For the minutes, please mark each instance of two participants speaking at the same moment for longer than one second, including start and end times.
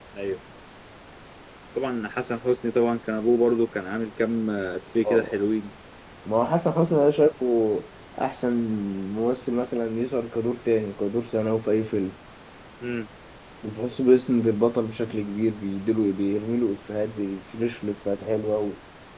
none

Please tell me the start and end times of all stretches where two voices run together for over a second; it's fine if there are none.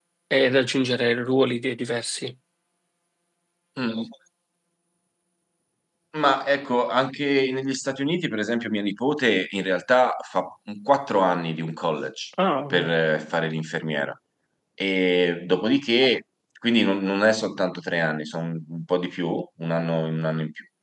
none

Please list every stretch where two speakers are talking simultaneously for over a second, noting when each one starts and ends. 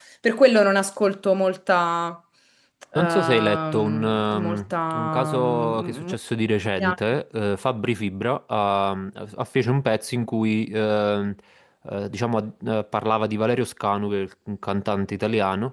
3.0-6.1

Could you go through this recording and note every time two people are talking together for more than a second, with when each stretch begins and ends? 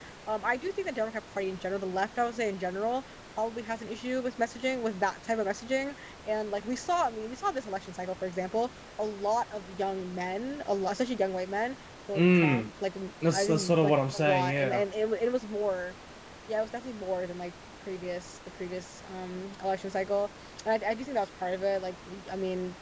13.3-14.8

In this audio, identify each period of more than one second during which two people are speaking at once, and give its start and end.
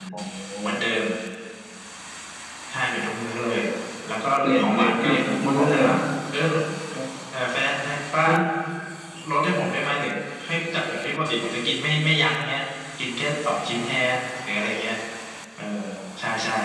4.4-5.9

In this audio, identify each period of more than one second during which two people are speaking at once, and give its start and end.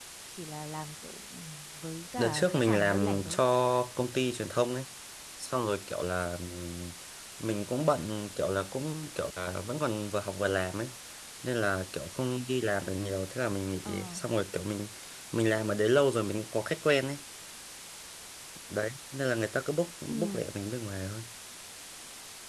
2.2-3.4

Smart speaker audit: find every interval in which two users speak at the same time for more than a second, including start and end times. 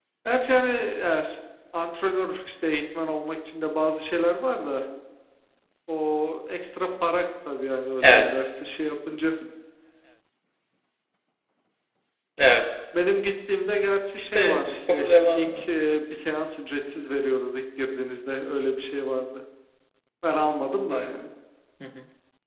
14.2-15.7

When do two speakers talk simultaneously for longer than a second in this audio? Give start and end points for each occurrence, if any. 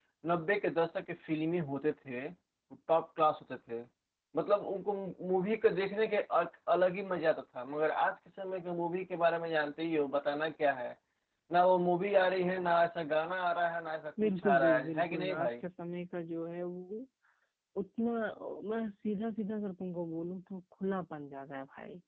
14.2-15.6

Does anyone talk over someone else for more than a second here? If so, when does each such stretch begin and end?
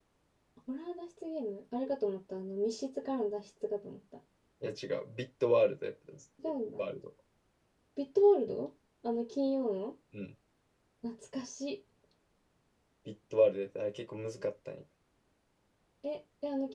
none

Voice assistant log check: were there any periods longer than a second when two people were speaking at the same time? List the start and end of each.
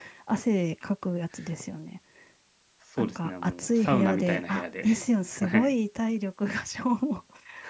3.0-4.9

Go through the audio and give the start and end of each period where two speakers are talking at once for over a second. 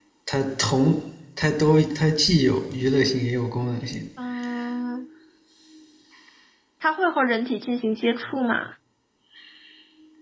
none

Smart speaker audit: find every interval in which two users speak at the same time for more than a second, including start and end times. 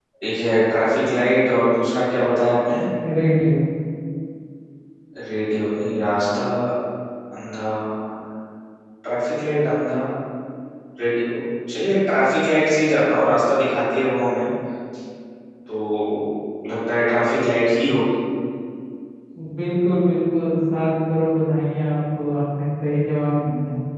none

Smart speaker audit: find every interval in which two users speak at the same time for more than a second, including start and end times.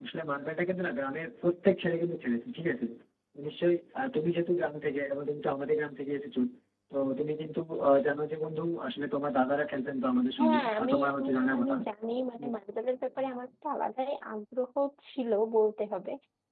10.4-11.8

